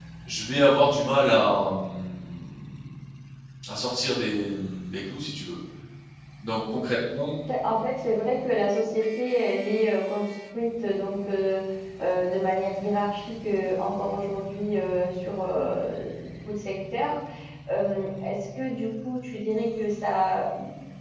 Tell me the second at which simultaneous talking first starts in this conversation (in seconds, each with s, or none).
none